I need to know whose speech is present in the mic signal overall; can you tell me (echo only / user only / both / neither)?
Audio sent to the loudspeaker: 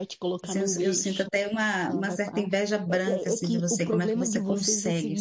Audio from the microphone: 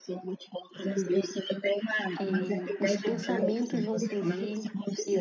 both